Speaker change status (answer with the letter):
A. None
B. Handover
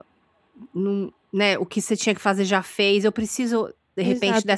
B